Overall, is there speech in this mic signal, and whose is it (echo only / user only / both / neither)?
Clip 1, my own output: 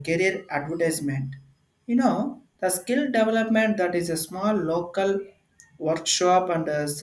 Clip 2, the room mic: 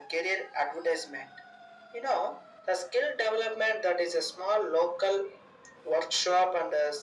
echo only